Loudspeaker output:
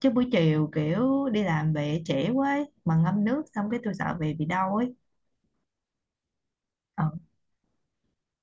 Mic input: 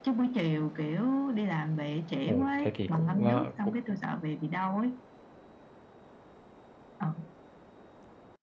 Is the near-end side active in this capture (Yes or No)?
Yes